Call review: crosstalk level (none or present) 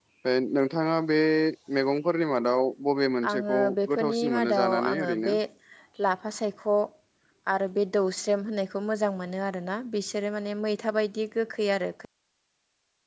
present